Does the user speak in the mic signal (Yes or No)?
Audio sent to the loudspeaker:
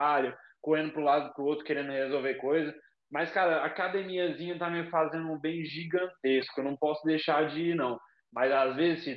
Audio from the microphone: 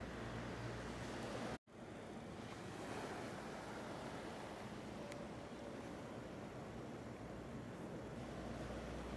No